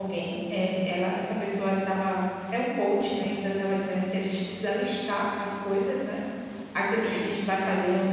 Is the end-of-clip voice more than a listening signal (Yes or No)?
No